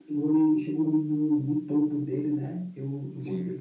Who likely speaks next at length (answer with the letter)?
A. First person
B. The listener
B